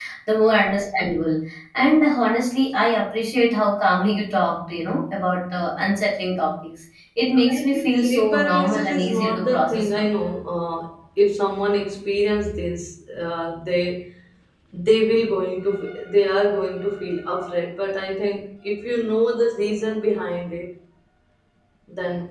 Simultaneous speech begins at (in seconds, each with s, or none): 7.4 s